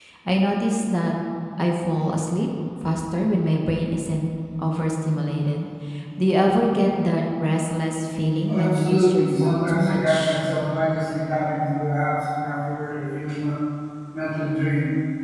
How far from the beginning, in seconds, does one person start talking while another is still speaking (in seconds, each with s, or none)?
8.5 s